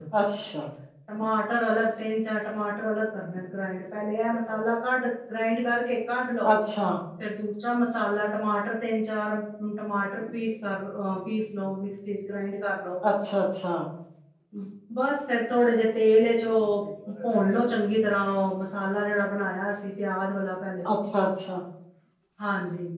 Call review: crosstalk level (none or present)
none